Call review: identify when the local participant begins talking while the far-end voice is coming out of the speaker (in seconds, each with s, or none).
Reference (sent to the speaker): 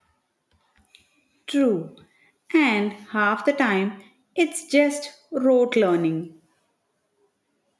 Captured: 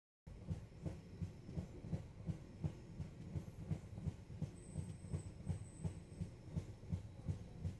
none